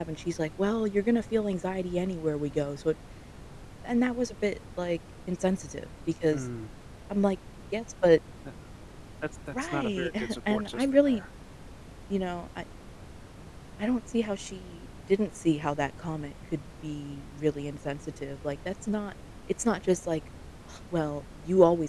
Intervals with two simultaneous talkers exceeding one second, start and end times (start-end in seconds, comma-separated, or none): 9.6-11.2